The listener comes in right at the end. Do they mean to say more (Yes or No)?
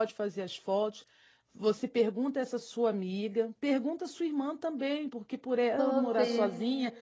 No